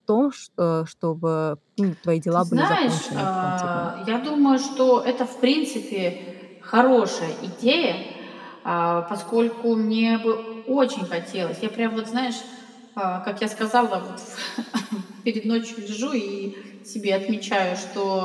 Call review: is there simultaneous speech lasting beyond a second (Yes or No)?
Yes